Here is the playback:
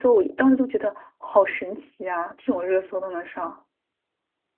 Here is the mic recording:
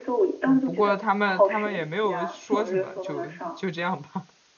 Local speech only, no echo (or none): 嗯，不过他们他们也没有说什么，就就这样吧。